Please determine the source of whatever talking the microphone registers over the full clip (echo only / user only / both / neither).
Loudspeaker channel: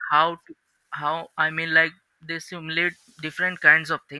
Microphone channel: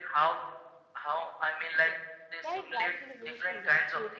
both